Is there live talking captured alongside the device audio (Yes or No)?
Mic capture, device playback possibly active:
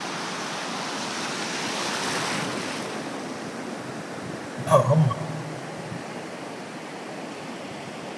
Yes